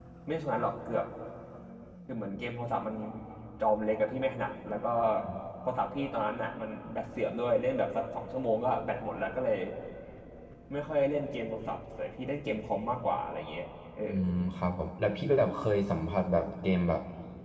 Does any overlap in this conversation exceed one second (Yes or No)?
No